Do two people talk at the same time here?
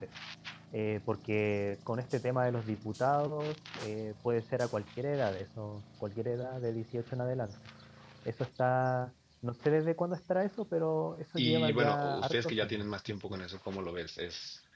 Yes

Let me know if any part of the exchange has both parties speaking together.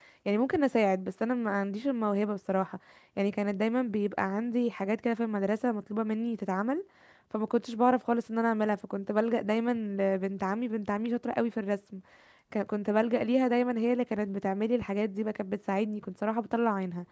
No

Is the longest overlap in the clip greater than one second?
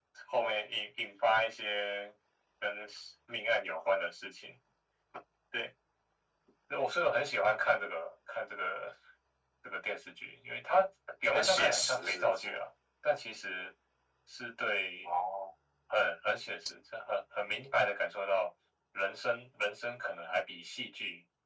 Yes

